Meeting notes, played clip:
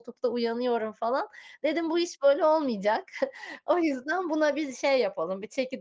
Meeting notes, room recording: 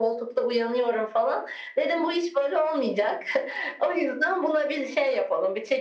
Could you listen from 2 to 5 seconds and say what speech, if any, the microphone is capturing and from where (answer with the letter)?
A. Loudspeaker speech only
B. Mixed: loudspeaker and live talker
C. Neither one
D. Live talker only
A